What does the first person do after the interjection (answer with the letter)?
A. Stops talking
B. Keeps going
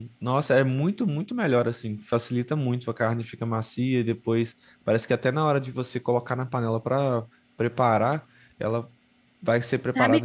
A